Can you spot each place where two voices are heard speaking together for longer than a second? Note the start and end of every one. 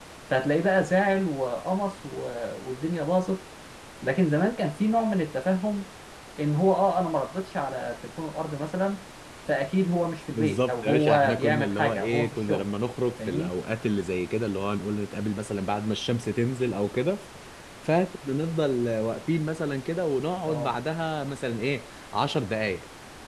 10.3-12.7

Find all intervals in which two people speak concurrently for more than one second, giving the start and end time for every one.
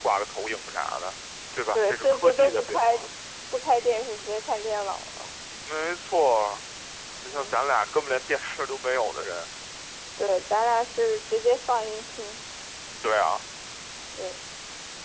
1.7-3.0

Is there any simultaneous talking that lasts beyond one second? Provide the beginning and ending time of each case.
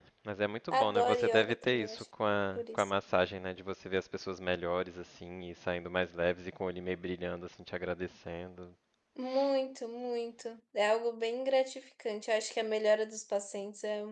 0.7-2.0

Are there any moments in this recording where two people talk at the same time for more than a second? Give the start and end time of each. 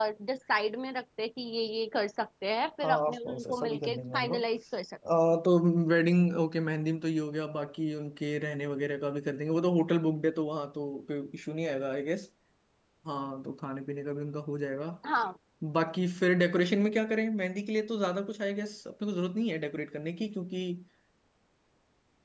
2.8-4.5

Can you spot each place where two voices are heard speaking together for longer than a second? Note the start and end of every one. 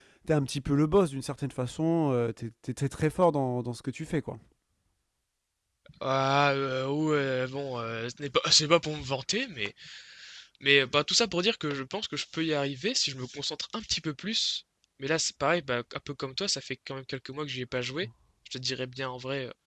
none

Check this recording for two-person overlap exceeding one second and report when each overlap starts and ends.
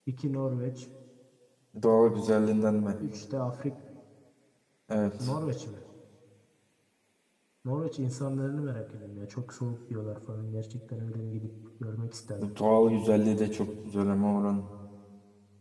none

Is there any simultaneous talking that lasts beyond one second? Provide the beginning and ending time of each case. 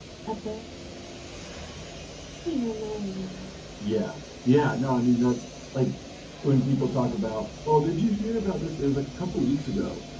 none

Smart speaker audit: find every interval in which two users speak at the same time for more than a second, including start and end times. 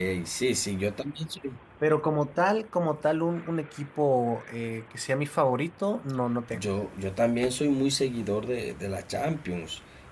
none

